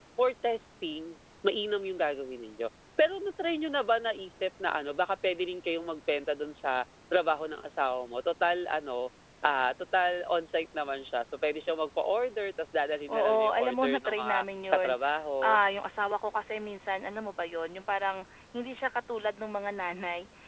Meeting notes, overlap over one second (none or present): present